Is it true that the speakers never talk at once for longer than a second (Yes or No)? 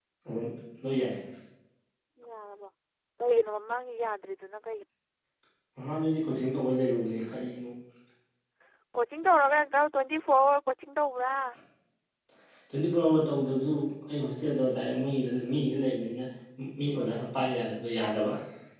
Yes